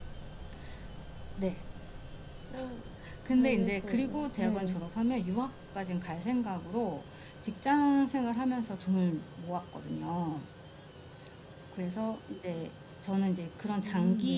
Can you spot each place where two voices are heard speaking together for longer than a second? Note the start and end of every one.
3.3-4.8

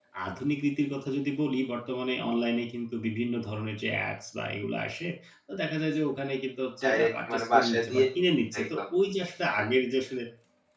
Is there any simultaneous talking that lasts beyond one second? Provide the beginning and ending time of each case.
6.8-8.0

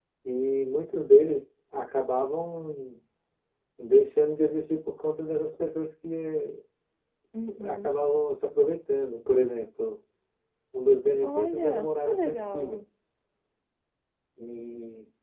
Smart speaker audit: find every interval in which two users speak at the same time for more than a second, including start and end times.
11.2-12.8

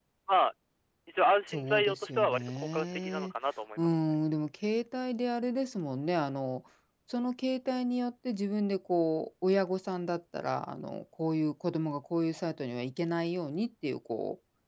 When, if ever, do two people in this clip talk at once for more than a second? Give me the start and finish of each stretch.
1.5-3.3

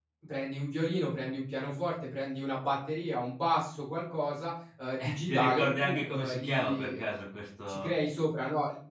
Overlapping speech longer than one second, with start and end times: 5.0-7.0

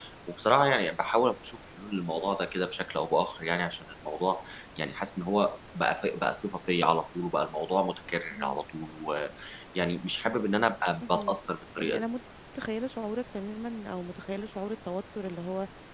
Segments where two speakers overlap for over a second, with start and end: none

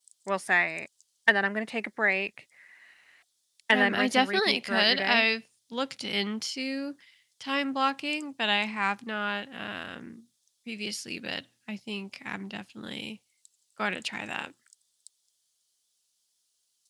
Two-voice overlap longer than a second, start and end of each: 3.7-5.2

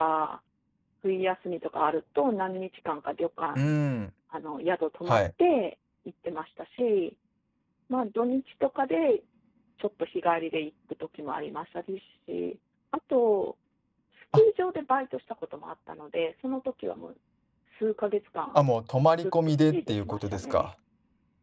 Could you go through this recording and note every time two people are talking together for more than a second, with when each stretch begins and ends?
19.2-20.7

